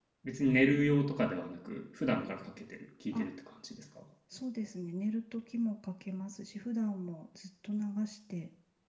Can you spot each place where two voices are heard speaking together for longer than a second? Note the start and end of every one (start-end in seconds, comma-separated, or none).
none